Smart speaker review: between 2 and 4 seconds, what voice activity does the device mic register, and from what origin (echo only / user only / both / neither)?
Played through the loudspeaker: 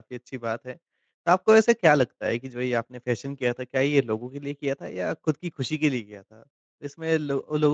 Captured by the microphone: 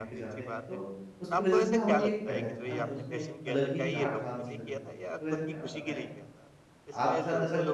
both